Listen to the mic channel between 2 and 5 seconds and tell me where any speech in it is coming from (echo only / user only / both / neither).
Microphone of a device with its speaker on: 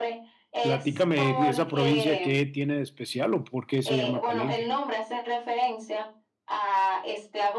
both